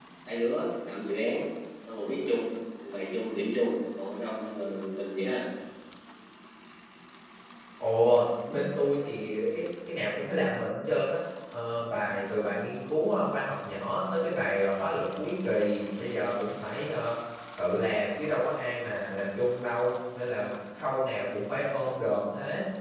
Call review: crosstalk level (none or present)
none